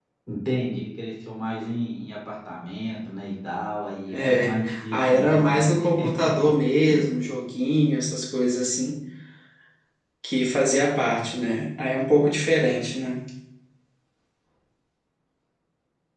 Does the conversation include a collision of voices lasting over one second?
Yes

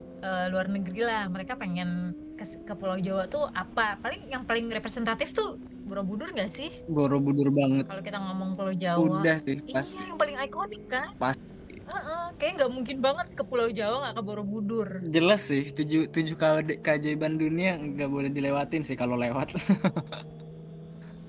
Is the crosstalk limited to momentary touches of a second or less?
Yes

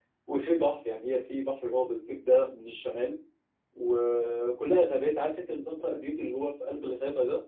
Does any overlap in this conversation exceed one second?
No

